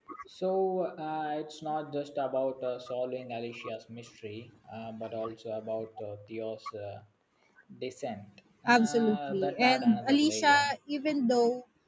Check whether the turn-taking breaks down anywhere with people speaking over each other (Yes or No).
Yes